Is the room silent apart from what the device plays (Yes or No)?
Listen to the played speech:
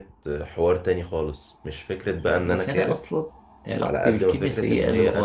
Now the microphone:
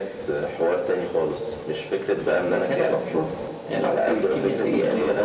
Yes